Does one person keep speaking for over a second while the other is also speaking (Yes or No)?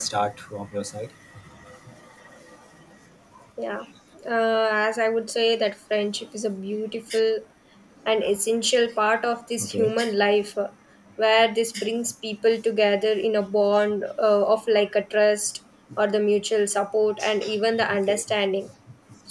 No